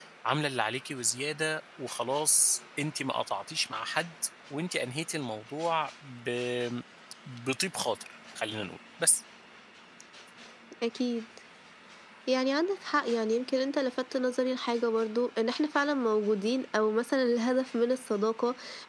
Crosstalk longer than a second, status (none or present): none